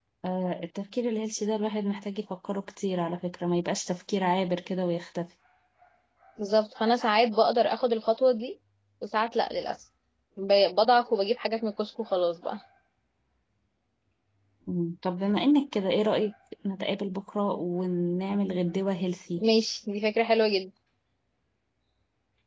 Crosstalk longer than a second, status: none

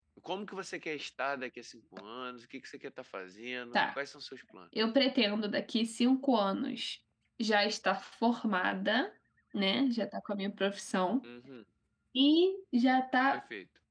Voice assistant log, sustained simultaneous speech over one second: none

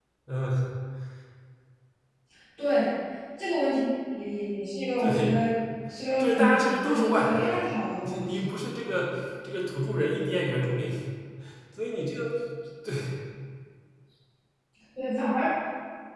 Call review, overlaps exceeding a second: present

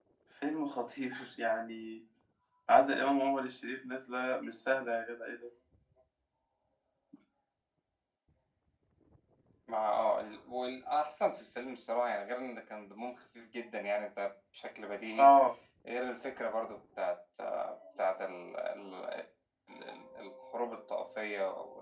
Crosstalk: none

